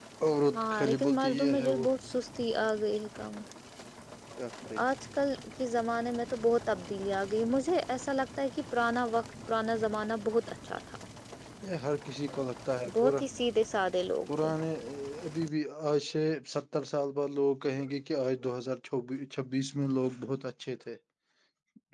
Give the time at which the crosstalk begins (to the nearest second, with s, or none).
1 s